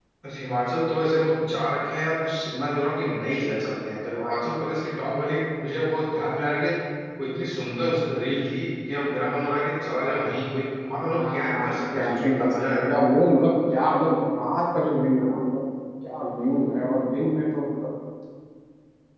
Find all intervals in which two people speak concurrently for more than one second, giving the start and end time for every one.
11.3-12.9

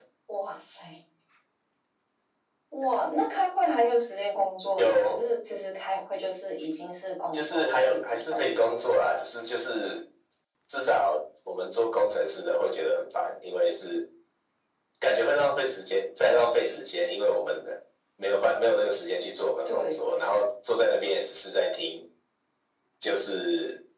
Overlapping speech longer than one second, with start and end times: 7.3-8.6

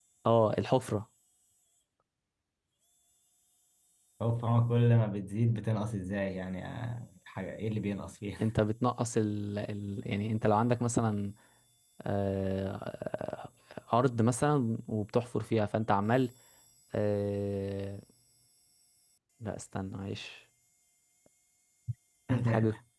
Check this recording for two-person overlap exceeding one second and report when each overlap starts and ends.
none

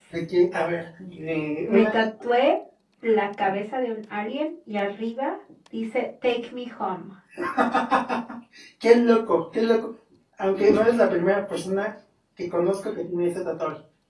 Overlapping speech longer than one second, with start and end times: none

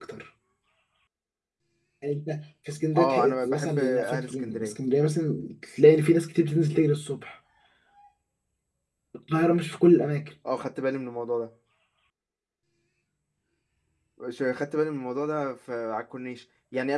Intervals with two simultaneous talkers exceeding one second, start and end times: 3.0-4.8

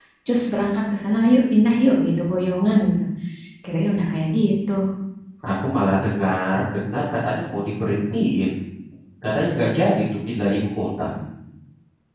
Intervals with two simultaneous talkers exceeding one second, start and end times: none

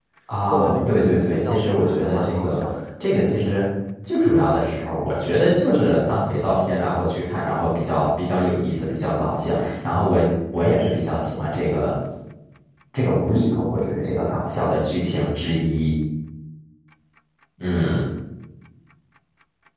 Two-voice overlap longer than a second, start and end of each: 0.5-2.6

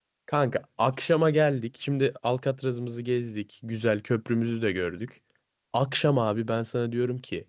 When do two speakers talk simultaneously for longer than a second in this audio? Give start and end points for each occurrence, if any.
none

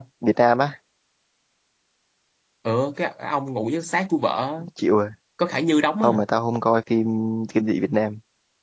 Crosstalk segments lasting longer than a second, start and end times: none

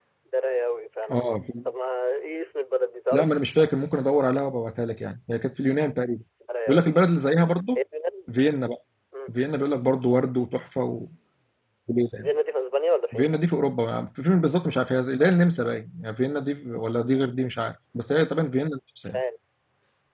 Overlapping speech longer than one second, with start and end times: none

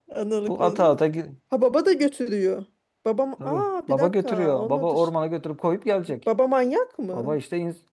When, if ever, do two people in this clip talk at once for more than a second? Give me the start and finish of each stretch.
3.4-5.1

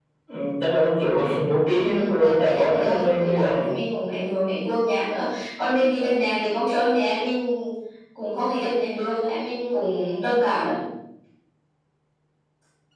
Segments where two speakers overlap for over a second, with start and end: 1.7-3.6

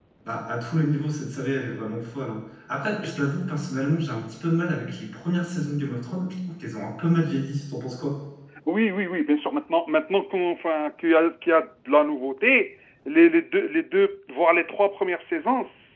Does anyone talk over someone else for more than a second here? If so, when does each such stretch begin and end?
none

